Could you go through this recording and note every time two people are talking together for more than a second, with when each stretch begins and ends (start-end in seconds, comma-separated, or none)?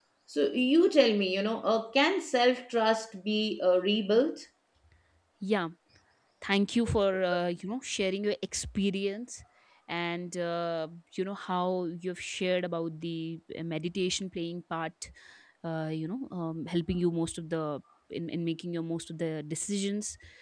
none